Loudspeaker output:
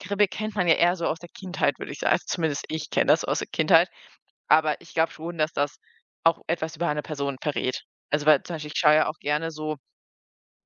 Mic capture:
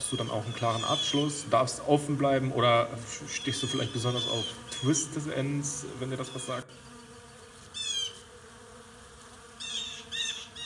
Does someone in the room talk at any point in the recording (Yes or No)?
Yes